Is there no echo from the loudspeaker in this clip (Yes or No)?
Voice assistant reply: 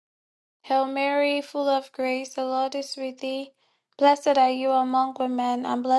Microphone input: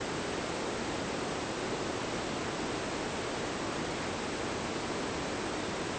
Yes